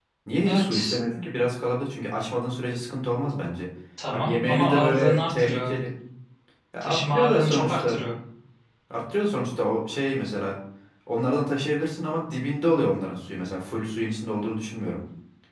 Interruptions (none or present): present